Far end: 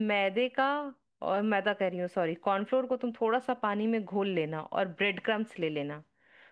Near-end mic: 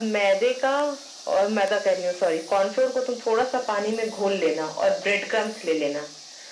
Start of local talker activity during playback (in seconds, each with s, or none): none